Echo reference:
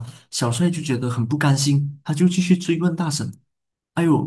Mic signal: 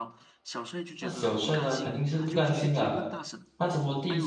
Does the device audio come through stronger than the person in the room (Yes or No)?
No